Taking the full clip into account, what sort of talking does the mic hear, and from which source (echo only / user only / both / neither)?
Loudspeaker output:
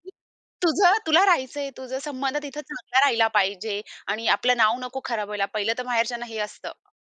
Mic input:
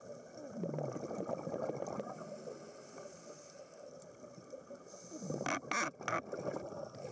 neither